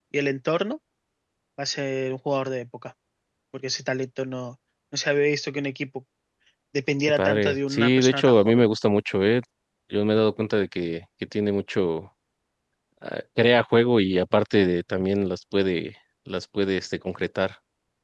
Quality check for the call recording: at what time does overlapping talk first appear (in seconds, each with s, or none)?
7.1 s